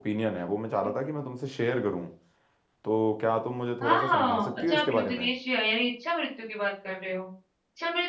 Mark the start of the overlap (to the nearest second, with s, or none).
4 s